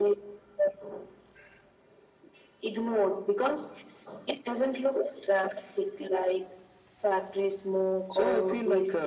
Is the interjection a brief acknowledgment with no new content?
No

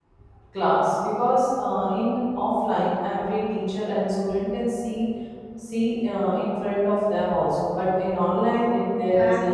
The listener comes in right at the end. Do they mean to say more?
Yes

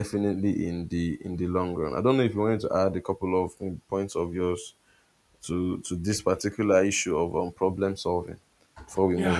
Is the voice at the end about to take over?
Yes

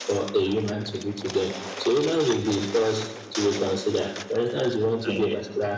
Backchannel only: Yes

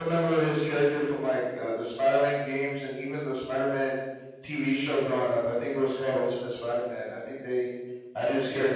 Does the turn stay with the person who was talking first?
Yes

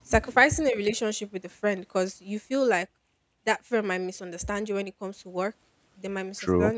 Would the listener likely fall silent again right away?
Yes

